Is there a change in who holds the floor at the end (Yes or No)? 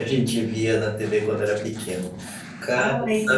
No